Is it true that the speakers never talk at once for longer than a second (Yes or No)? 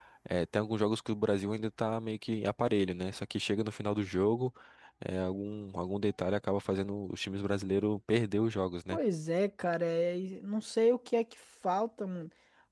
Yes